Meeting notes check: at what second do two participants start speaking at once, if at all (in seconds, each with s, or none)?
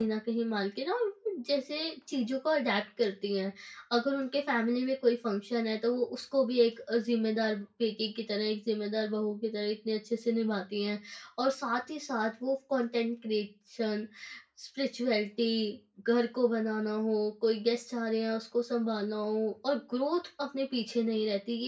none